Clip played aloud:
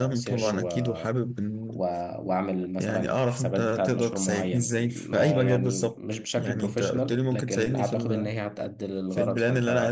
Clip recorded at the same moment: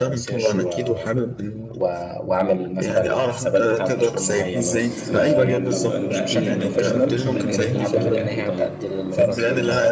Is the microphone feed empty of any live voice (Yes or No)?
No